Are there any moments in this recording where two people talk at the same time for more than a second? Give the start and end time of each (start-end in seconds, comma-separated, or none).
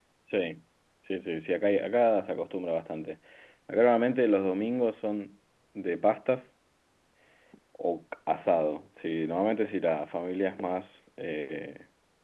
none